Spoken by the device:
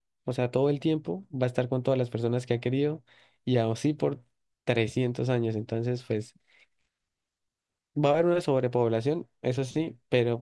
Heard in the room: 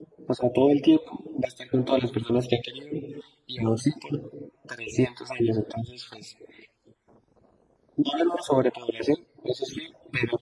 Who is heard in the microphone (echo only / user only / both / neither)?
echo only